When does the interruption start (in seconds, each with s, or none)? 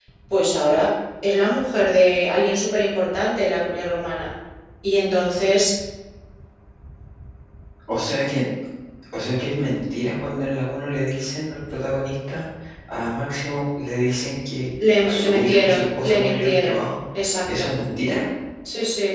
15.0 s